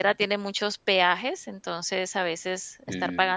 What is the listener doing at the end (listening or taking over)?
listening